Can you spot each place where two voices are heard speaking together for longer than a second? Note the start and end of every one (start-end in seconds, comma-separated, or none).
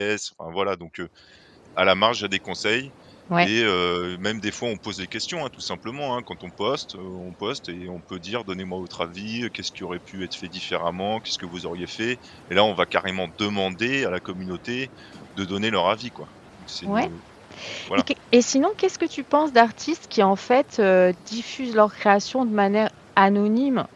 none